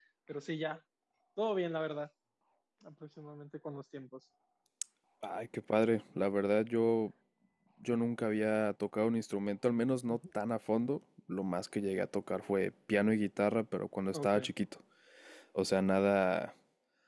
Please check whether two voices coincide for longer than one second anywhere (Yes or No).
No